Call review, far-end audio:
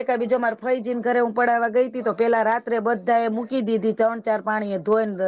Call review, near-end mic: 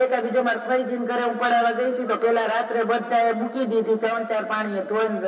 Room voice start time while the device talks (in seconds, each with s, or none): none